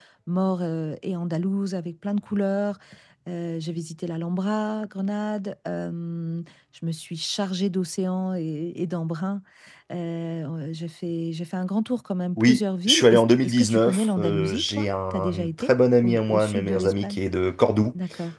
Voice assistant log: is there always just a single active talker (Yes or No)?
No